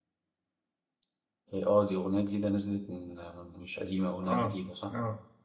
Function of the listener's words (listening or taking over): taking over